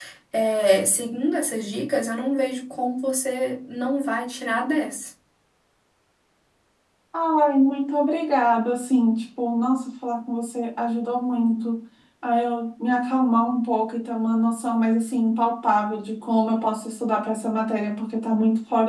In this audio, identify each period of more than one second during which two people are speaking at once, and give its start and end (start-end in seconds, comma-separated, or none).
none